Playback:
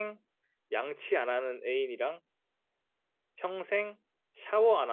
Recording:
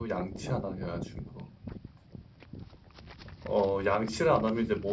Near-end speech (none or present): present